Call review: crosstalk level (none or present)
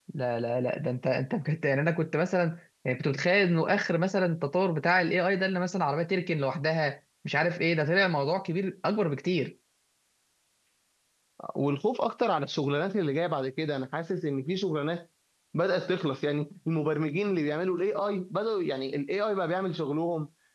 none